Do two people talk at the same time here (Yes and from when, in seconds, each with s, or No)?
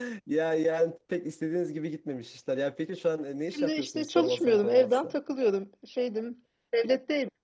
Yes, from 3.5 s